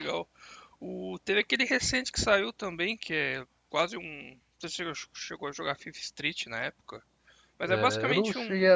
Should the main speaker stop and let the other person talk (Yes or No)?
Yes